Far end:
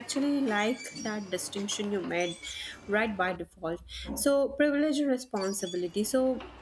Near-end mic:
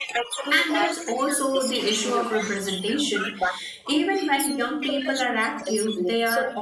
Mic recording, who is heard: both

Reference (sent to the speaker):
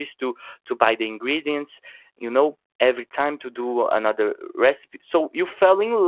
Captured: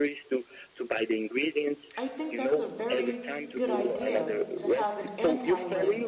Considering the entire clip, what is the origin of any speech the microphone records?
both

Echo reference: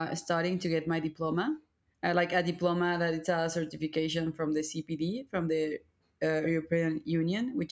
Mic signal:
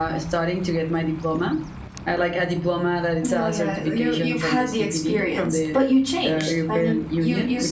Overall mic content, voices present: both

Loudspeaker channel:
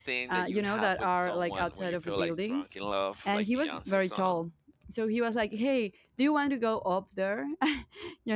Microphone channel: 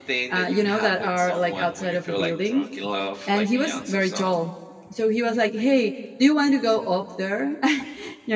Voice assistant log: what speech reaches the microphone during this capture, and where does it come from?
echo only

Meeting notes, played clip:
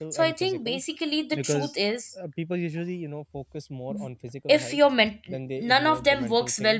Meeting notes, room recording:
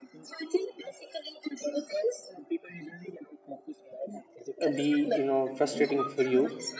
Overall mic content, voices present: both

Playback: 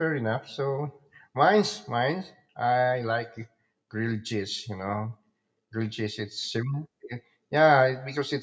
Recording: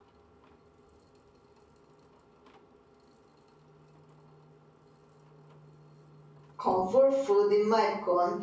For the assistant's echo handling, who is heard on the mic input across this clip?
user only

